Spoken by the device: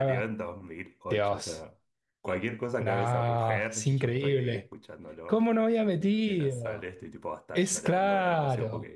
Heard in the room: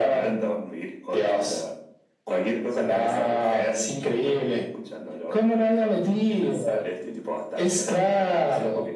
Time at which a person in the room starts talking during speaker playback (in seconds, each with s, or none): none